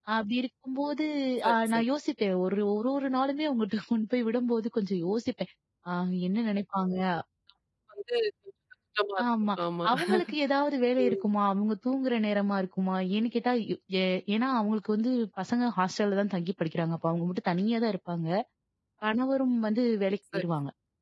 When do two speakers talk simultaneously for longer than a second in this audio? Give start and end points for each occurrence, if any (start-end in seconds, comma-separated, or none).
none